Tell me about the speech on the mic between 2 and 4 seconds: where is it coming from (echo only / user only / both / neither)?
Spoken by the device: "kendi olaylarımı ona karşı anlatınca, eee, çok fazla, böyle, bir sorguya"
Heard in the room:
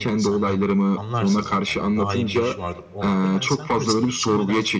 both